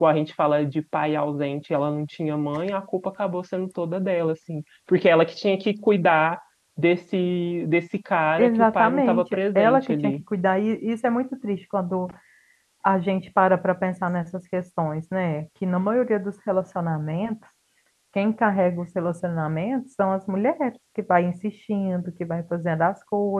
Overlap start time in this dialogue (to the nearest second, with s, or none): 8 s